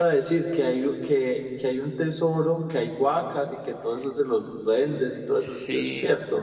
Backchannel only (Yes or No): No